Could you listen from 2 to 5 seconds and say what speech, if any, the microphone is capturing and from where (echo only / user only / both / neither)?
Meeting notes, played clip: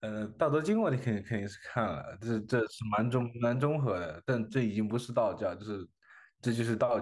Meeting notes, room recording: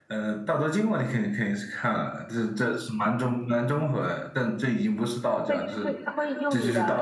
echo only